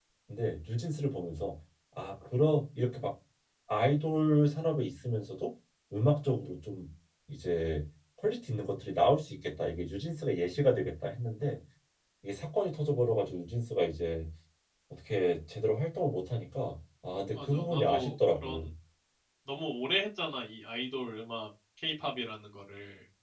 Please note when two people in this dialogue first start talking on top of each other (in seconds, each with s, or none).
17.4 s